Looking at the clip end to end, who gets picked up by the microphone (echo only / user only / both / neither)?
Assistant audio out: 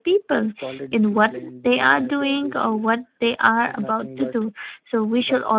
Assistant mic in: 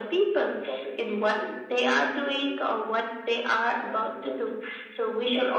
echo only